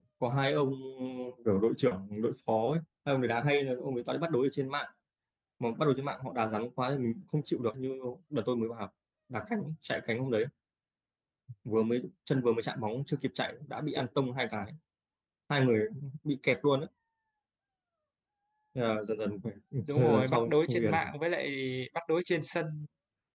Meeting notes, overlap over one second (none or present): present